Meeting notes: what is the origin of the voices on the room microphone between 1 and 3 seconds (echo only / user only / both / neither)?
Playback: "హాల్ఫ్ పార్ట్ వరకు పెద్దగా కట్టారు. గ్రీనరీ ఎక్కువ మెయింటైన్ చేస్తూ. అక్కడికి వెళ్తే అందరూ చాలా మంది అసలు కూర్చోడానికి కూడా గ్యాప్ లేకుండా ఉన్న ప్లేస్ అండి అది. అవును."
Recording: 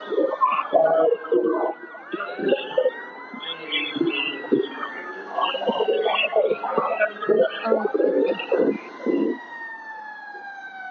echo only